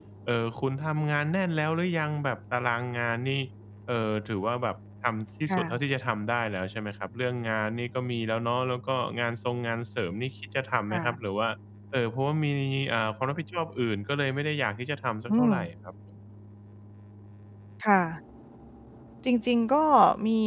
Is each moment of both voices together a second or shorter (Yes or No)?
Yes